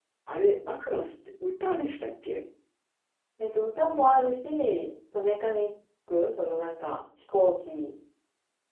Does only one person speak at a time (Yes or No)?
Yes